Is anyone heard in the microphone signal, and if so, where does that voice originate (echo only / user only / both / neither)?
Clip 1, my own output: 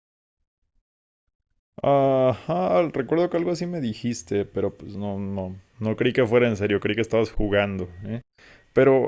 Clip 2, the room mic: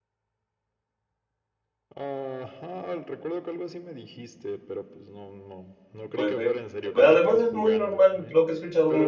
both